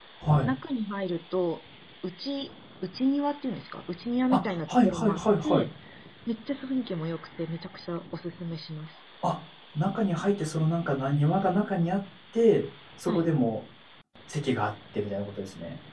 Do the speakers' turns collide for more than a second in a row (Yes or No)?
Yes